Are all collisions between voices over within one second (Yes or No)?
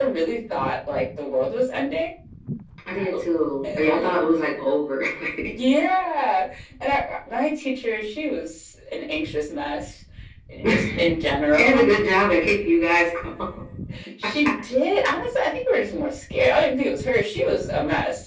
Yes